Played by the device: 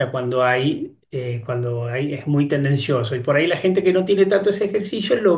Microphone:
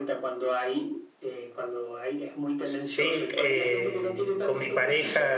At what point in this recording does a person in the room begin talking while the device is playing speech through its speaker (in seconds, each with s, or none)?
2.6 s